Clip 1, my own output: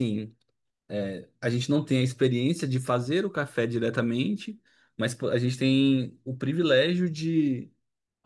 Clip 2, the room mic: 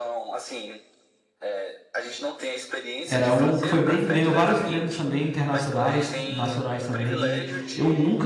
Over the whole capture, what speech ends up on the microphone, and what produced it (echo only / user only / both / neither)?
both